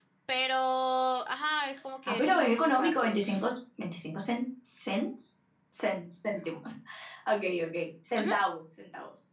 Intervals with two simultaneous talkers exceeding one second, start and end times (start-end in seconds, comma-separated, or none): 2.1-3.4